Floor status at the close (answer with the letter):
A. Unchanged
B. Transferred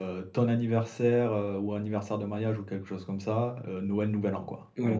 B